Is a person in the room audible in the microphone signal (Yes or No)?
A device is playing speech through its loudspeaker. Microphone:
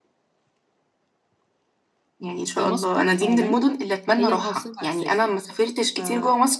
Yes